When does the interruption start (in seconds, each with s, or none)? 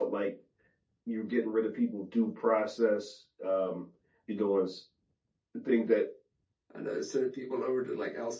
none